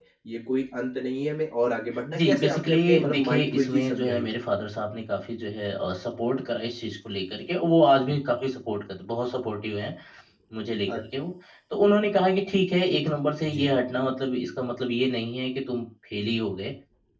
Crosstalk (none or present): present